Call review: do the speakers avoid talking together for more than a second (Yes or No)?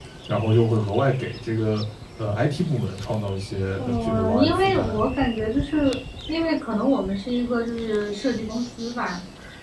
No